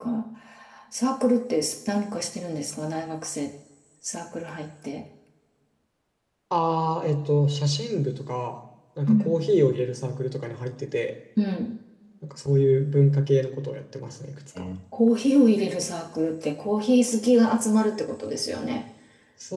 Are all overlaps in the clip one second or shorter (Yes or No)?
Yes